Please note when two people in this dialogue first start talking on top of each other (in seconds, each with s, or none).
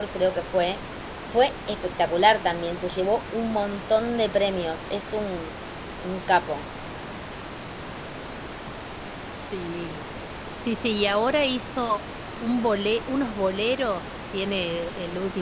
none